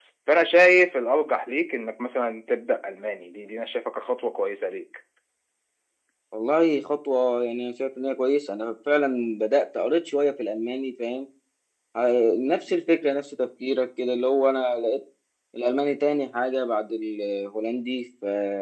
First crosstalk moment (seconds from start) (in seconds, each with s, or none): none